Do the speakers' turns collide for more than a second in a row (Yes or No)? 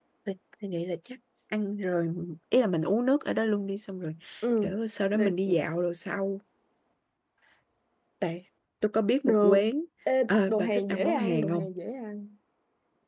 Yes